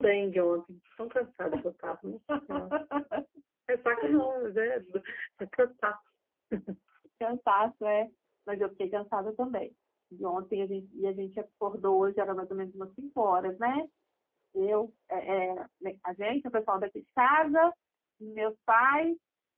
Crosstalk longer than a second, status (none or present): none